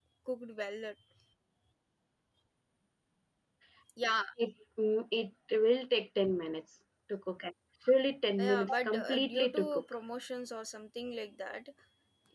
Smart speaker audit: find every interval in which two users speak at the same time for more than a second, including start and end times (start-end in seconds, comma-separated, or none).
8.4-9.8